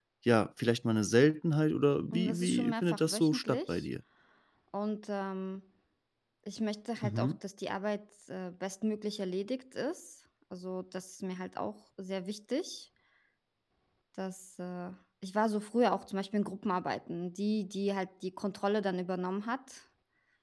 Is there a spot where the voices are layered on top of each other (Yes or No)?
Yes